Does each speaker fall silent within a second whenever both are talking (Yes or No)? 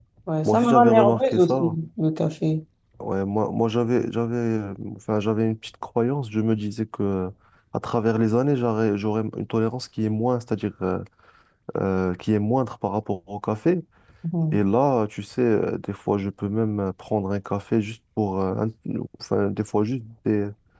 No